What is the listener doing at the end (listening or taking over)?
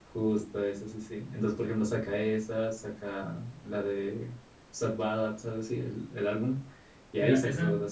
taking over